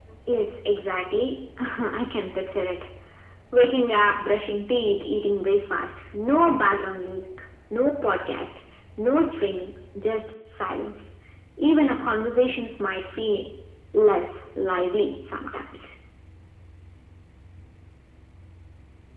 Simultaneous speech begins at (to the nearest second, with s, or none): none